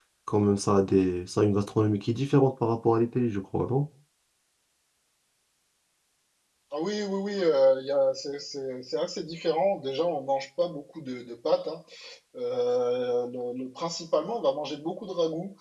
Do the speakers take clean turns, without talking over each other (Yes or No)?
Yes